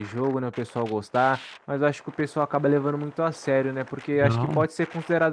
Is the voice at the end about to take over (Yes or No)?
No